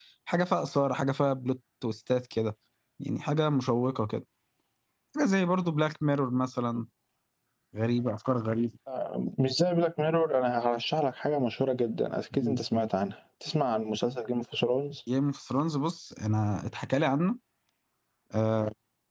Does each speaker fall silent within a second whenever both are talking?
Yes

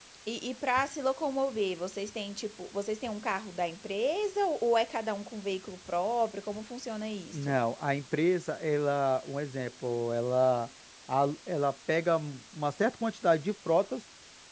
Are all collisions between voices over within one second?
Yes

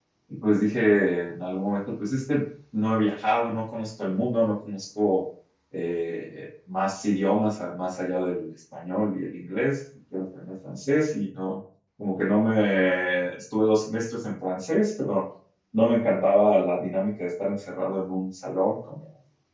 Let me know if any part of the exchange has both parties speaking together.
No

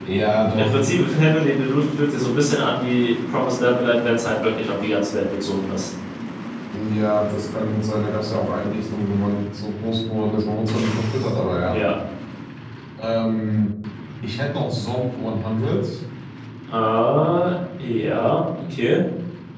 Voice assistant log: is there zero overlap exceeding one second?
Yes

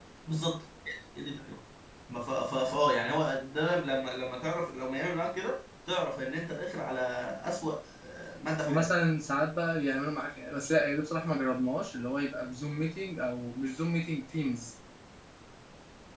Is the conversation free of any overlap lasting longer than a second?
Yes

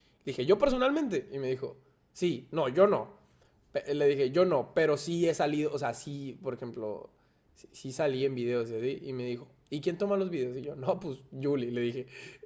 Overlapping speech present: No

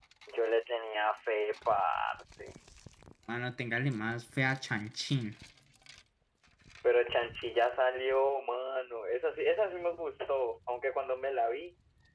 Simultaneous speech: No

